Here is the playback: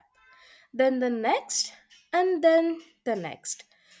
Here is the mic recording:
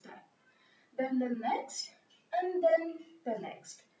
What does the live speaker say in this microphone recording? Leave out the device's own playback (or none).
none